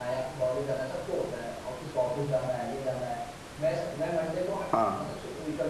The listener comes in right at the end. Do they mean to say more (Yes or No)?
No